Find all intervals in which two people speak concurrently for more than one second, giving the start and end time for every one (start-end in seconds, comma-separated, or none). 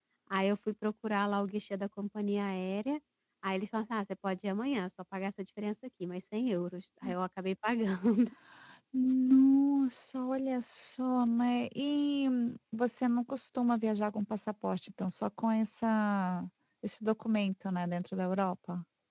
none